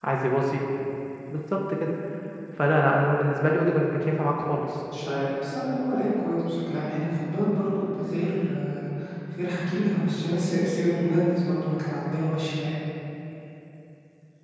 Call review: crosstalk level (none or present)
none